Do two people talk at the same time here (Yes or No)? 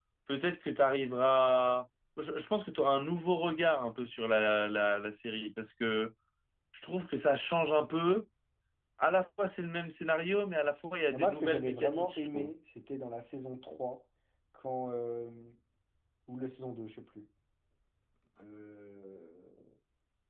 Yes